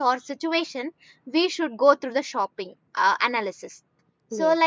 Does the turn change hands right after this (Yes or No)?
No